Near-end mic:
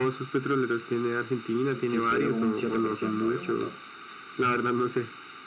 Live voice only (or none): none